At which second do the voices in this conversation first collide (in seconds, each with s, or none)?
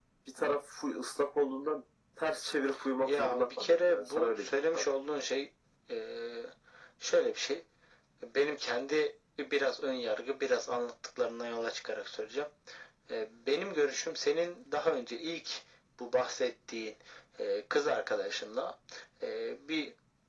3.1 s